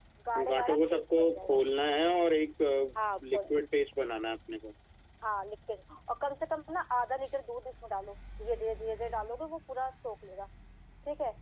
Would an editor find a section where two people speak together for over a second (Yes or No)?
Yes